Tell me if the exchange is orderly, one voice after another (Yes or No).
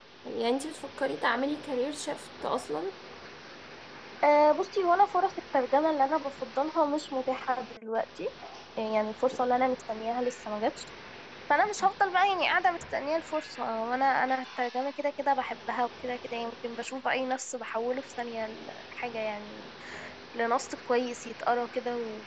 Yes